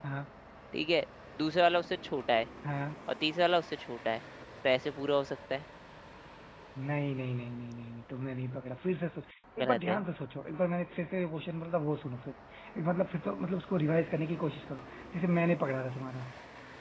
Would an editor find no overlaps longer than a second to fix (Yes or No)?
Yes